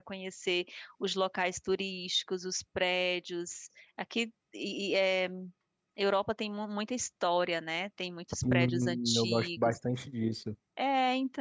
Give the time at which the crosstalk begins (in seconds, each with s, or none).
8.4 s